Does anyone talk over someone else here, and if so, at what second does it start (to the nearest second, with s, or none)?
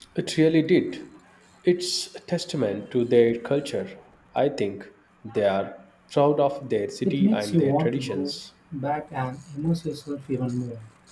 7 s